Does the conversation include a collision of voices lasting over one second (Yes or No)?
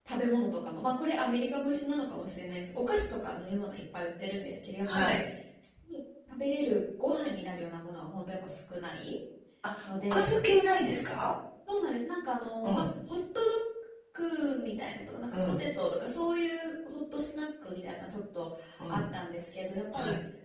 No